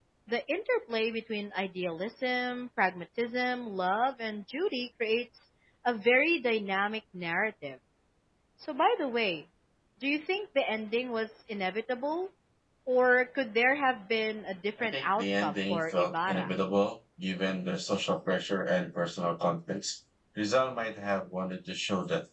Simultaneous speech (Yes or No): Yes